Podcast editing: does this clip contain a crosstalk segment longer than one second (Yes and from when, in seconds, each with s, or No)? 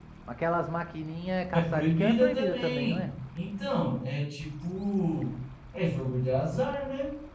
Yes, from 1.5 s